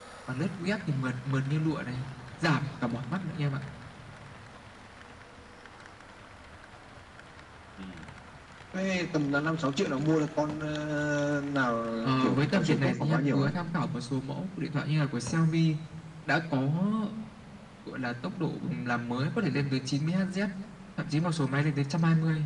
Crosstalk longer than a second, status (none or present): present